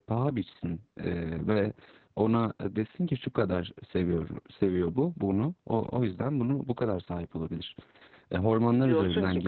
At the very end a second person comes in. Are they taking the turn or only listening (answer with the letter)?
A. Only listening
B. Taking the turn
B